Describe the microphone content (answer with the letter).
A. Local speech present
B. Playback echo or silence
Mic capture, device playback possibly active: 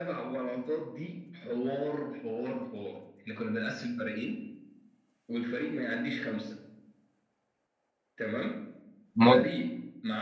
A